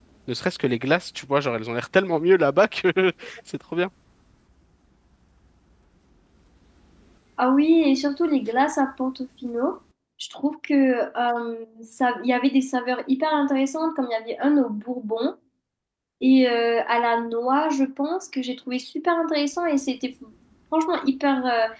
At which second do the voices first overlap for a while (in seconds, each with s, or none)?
none